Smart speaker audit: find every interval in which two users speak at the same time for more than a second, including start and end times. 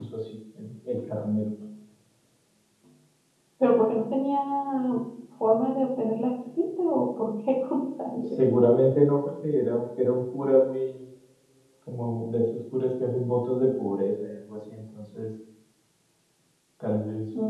none

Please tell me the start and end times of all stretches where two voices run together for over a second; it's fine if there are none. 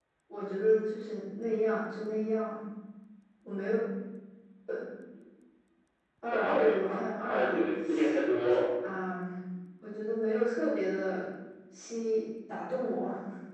6.2-7.6

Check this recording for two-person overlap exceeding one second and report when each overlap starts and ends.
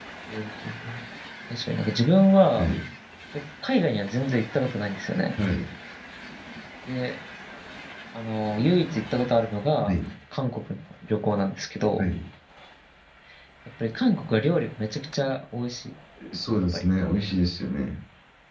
none

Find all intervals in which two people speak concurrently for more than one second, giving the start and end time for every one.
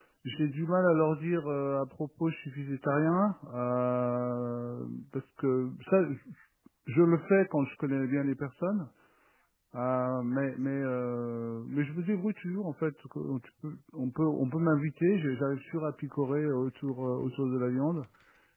none

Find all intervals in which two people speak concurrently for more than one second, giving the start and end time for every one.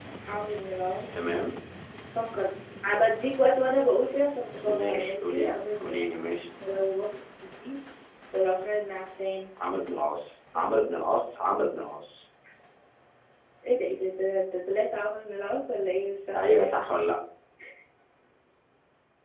4.6-6.0

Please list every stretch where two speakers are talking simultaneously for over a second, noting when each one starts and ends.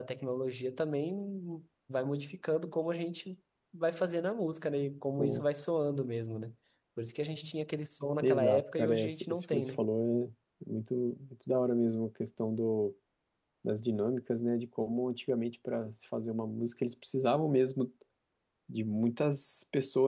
8.2-9.8

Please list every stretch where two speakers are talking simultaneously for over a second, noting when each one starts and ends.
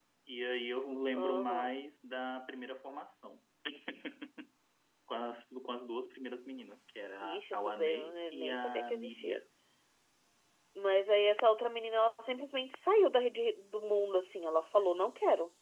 7.2-9.4

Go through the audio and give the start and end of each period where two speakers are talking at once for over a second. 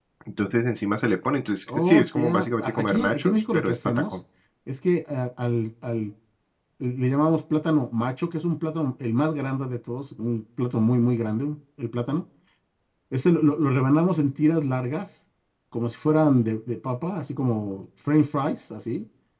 1.7-4.1

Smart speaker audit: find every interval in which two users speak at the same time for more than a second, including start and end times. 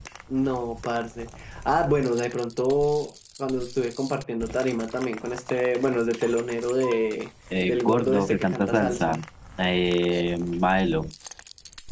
7.7-9.2

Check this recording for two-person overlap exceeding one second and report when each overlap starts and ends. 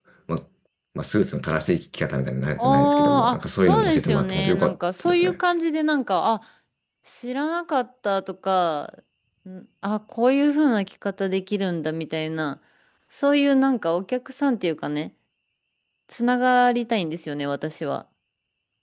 2.6-5.4

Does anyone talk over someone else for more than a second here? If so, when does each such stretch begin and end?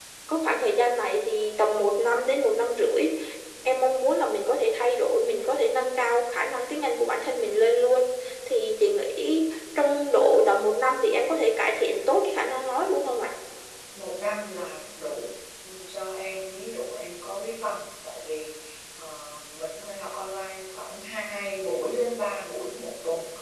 none

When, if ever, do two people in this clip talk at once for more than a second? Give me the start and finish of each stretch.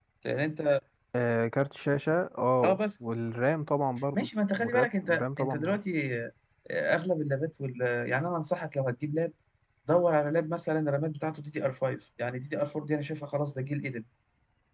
4.2-5.8

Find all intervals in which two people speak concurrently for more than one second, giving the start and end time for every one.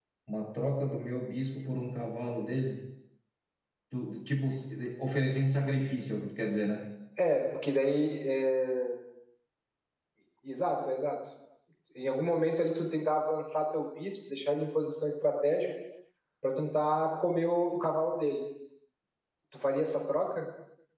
none

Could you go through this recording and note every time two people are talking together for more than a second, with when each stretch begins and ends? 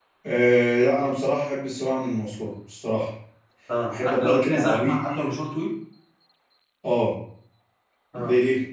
3.9-5.2

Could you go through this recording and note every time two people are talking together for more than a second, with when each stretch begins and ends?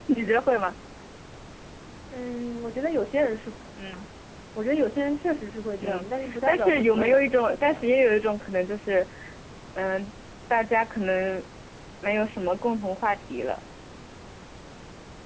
5.8-7.9

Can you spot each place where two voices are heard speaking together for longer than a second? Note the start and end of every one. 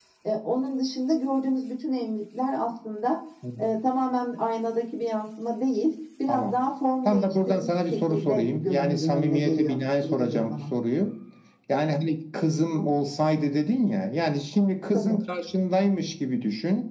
7.0-10.6

